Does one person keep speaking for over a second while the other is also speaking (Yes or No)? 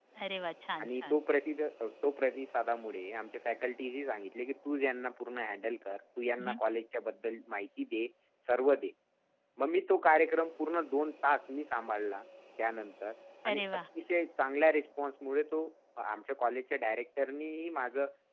No